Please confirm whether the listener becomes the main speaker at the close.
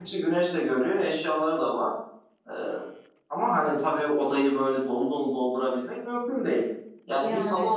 No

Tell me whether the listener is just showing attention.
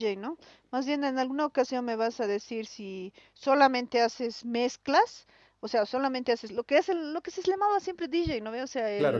Yes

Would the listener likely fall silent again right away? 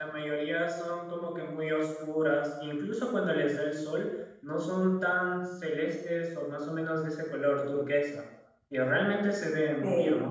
No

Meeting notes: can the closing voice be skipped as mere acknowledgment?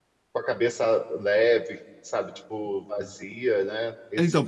No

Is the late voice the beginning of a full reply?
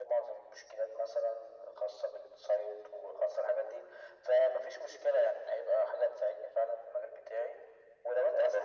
No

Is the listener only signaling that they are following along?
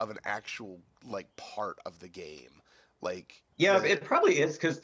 No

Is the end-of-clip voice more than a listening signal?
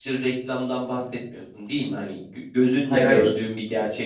No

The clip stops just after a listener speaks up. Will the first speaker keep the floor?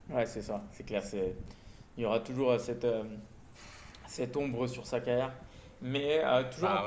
Yes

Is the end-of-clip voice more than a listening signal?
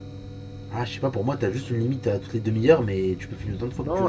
Yes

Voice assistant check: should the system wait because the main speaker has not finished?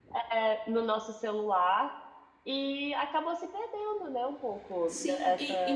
No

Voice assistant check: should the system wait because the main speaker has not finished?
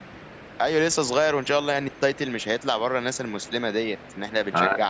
No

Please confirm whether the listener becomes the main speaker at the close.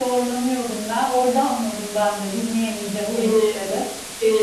Yes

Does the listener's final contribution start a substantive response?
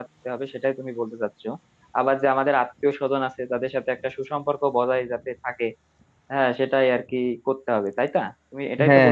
Yes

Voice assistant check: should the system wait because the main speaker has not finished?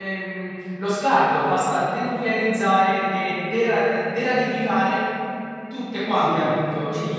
No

